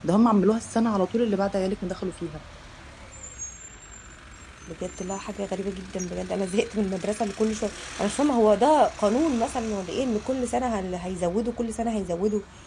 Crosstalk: none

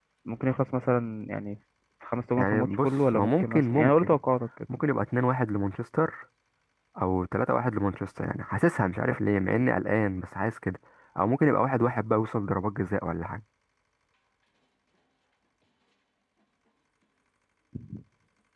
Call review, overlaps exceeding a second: present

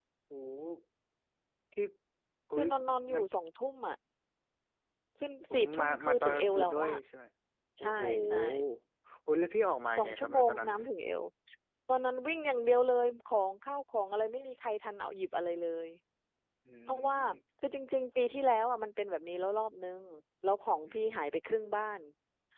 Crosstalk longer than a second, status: present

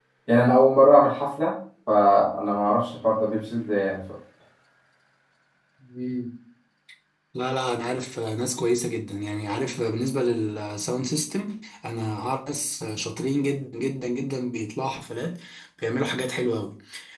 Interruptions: none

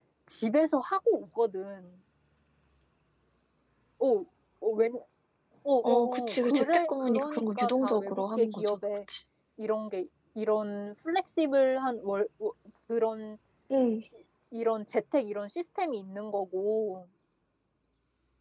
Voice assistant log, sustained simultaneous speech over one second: present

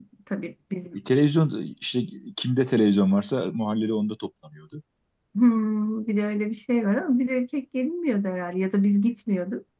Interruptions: none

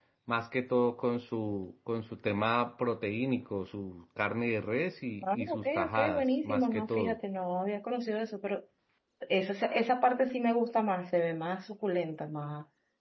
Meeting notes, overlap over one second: present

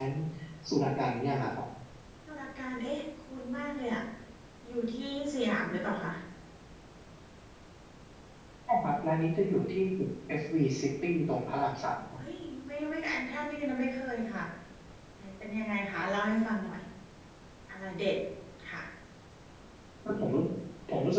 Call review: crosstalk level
none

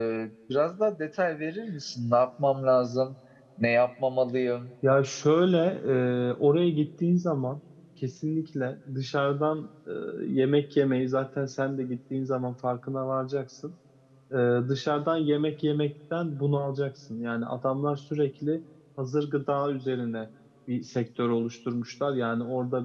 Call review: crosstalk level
none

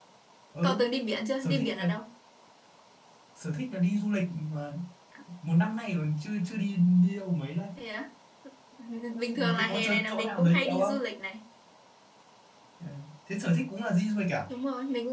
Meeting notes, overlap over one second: present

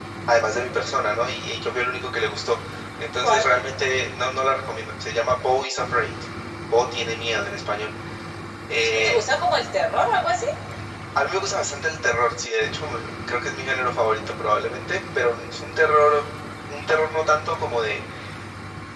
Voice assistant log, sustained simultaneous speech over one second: none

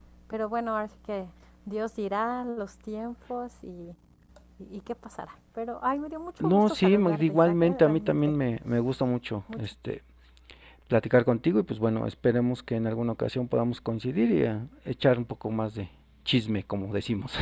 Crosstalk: present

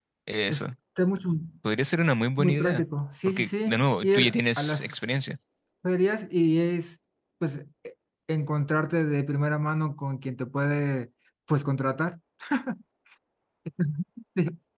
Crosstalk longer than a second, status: present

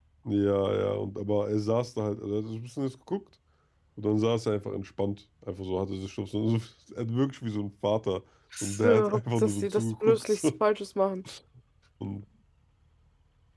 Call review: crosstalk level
present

